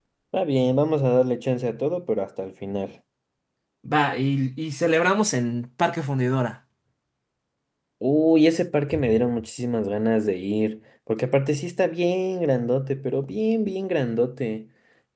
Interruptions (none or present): none